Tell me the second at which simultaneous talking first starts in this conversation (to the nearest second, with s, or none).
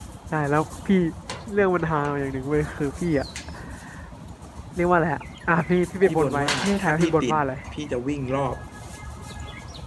6 s